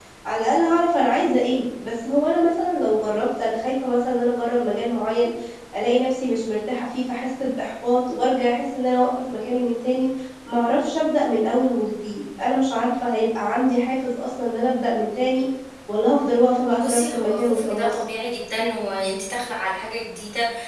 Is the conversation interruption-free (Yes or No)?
No